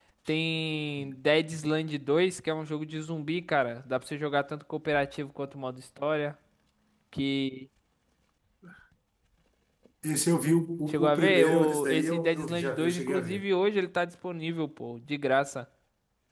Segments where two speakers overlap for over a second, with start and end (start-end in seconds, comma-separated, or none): 10.9-13.4